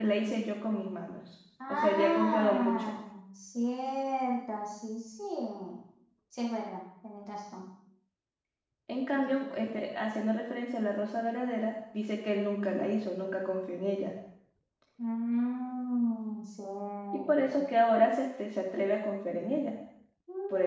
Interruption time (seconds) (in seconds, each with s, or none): 1.7 s